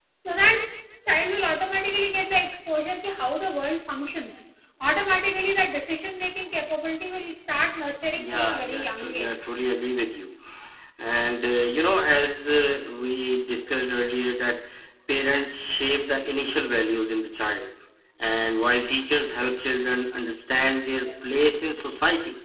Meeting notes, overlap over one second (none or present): present